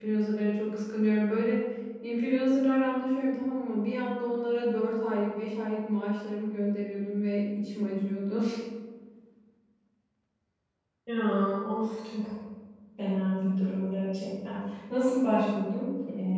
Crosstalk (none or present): none